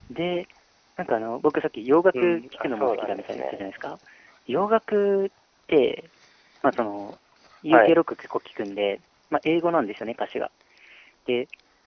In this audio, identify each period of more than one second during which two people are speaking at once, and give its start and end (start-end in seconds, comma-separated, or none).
2.2-3.6